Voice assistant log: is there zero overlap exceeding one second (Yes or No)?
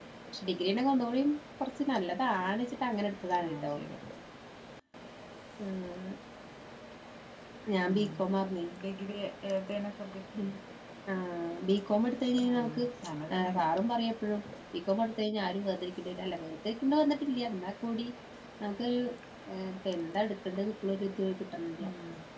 Yes